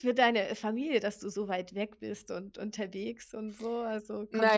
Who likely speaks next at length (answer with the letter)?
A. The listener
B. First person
A